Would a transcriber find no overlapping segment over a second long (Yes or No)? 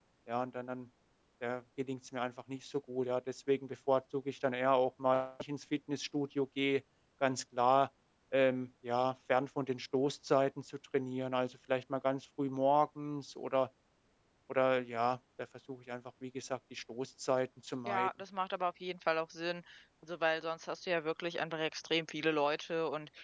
Yes